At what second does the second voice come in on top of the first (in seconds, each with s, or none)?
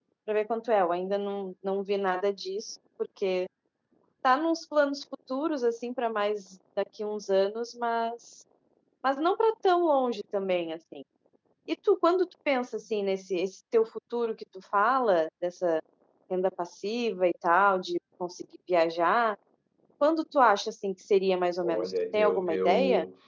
21.6 s